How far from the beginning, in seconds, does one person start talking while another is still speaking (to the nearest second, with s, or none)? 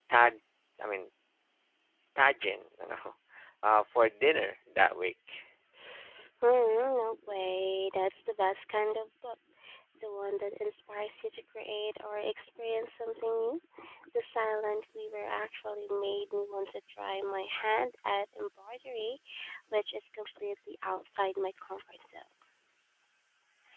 none